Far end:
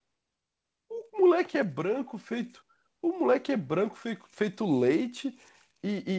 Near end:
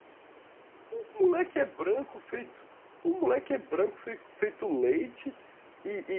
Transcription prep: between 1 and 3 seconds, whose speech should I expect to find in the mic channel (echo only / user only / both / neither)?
echo only